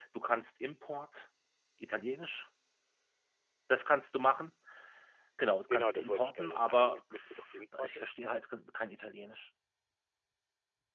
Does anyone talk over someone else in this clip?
Yes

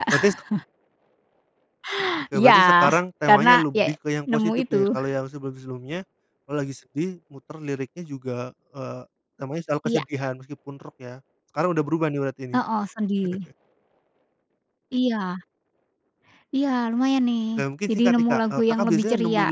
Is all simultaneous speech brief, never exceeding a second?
No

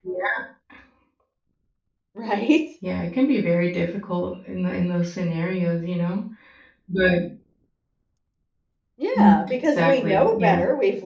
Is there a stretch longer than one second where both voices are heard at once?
Yes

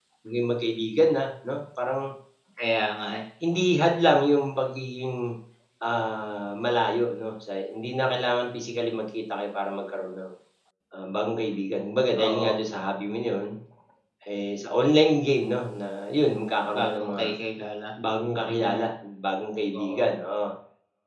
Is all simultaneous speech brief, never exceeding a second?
Yes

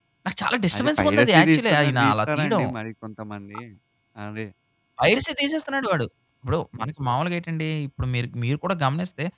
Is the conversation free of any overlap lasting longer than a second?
No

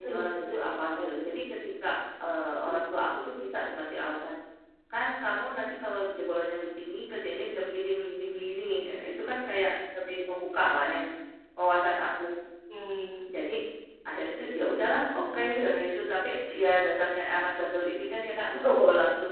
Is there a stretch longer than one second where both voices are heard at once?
Yes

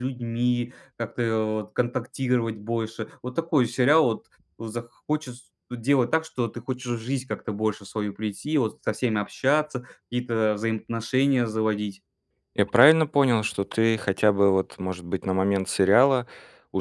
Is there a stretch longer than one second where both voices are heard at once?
No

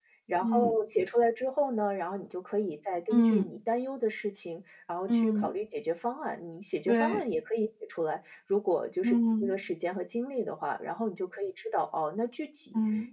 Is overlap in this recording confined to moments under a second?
Yes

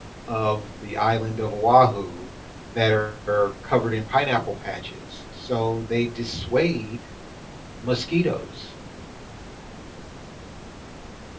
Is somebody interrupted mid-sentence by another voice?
No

